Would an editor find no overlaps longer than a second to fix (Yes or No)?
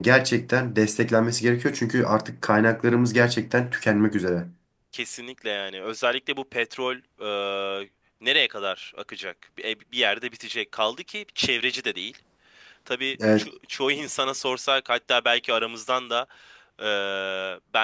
Yes